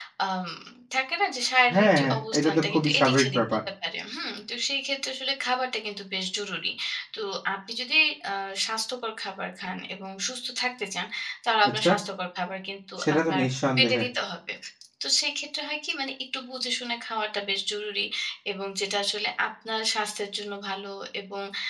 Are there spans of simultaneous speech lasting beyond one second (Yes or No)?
Yes